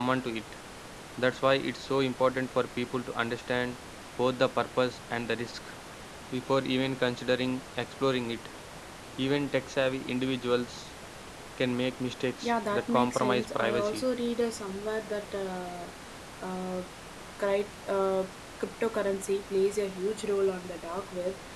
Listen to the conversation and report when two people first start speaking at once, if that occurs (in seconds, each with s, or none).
12.4 s